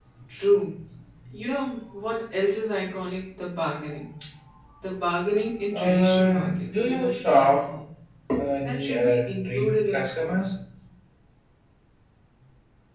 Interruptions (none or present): present